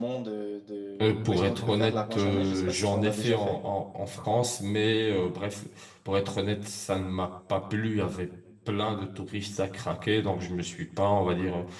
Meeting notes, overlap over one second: present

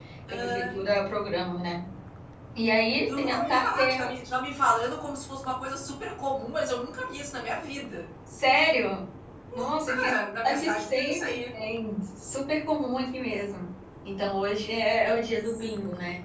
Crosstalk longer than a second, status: present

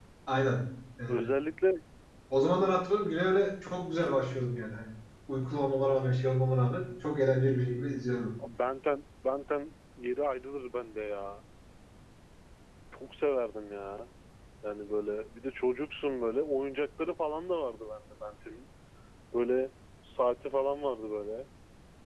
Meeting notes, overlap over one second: none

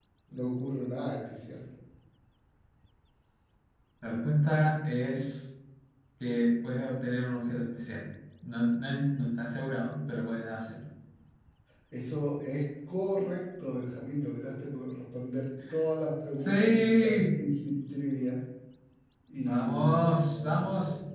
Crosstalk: present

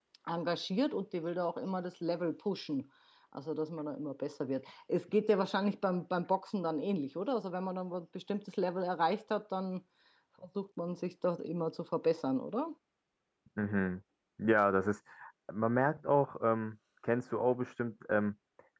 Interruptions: none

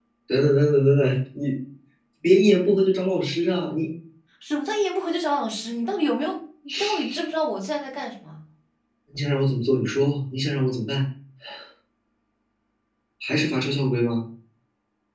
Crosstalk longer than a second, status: none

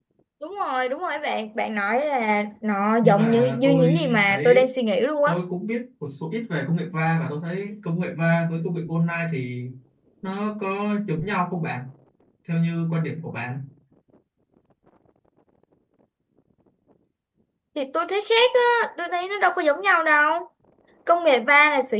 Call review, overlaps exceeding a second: present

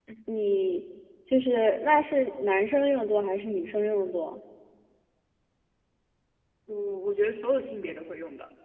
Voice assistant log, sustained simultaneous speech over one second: none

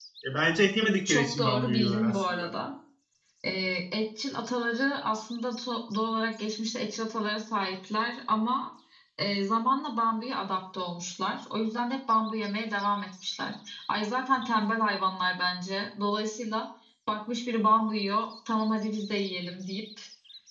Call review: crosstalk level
present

